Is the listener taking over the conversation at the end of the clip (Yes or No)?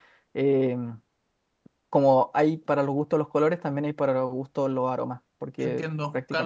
Yes